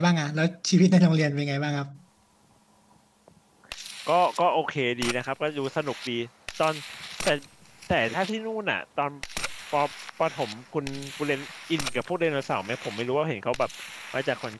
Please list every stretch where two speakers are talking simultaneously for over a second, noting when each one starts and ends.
none

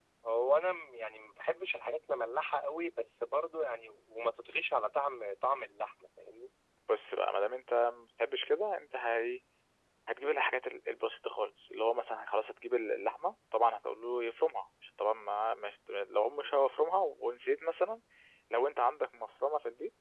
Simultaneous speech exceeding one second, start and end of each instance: none

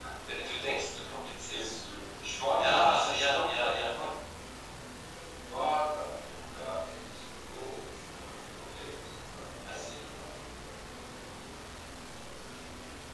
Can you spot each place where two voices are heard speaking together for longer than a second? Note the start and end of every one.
2.5-4.1

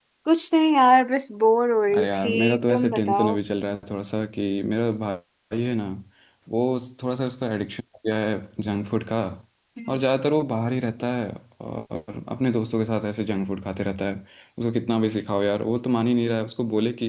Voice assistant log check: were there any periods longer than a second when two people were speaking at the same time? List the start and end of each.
2.0-3.3

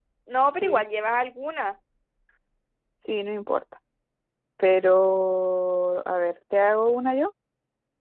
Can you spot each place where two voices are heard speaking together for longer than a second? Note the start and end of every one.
none

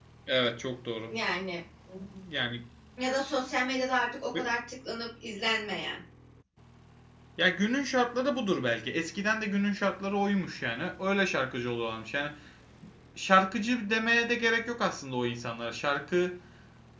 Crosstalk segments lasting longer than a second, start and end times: none

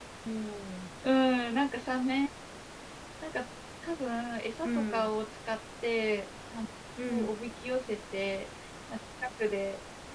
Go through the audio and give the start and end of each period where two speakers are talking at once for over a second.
none

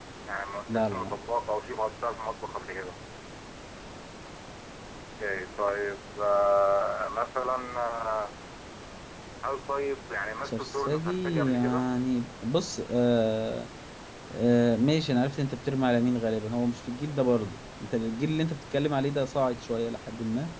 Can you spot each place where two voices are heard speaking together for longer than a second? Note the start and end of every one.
10.4-11.9

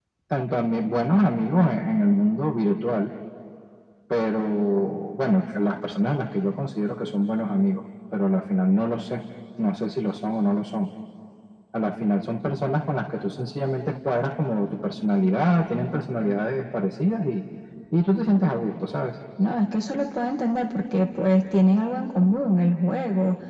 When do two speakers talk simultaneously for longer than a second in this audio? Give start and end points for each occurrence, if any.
none

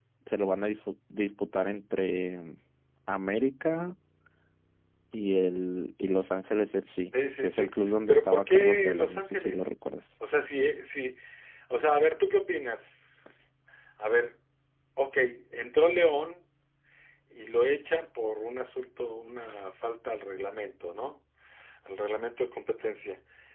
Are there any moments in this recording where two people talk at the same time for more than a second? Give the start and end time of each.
7.4-9.7

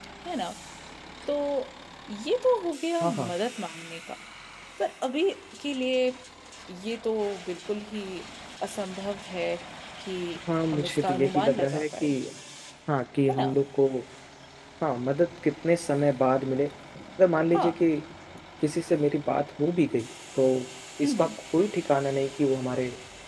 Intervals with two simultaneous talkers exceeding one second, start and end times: 10.7-12.1

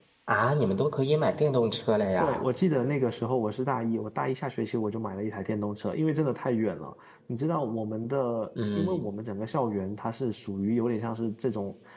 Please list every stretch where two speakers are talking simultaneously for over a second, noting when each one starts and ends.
none

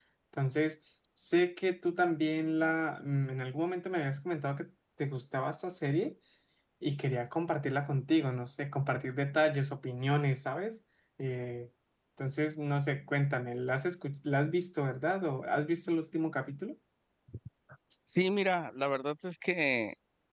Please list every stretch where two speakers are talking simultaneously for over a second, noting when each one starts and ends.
none

